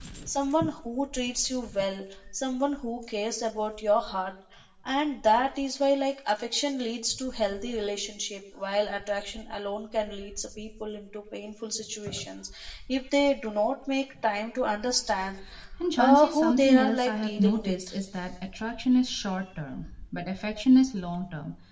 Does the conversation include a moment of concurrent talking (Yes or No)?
Yes